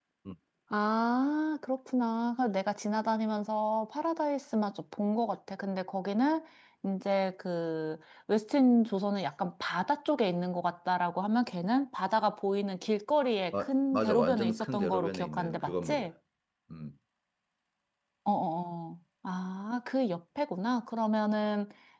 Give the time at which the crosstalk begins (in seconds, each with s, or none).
13.5 s